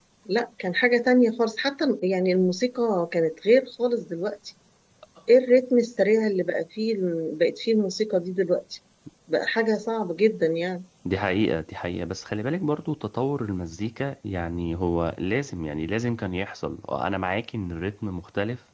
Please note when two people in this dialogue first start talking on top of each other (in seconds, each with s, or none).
none